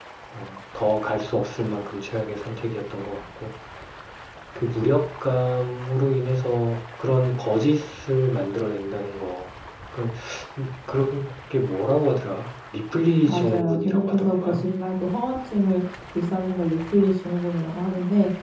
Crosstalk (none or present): present